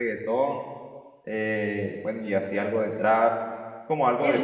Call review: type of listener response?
taking over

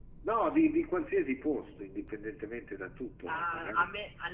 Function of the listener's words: taking over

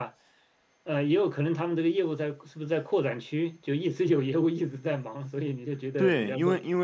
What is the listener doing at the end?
taking over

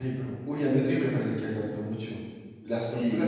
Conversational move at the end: taking over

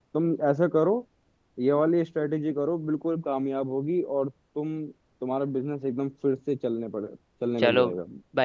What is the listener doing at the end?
taking over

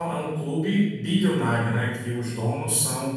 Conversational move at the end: listening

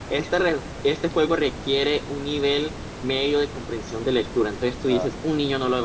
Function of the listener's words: listening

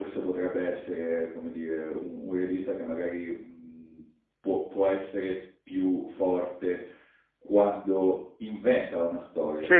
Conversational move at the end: listening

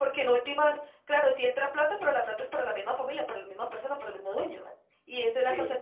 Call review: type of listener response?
listening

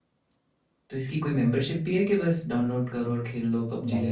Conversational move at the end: taking over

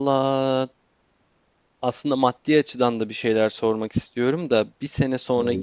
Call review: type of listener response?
listening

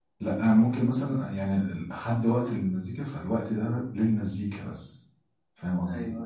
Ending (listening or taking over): taking over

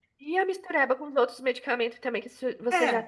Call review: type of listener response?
listening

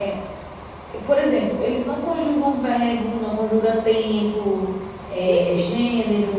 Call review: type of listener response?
listening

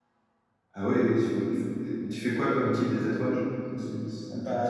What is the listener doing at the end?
taking over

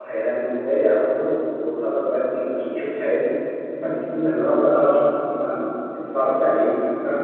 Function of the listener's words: taking over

